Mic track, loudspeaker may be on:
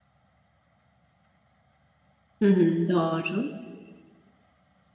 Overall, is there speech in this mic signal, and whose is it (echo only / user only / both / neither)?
user only